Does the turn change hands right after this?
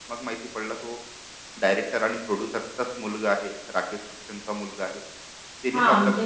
Yes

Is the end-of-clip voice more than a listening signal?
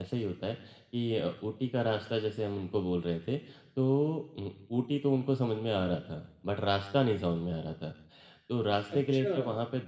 No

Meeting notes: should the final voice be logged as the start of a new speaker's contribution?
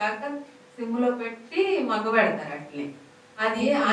No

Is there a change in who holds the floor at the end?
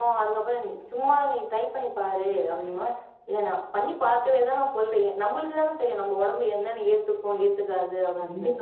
Yes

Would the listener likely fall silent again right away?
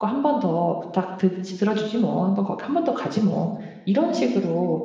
Yes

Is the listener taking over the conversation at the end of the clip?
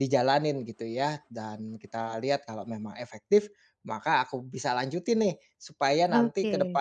No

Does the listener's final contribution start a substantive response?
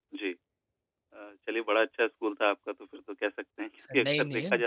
No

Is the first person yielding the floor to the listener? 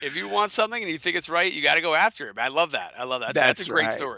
Yes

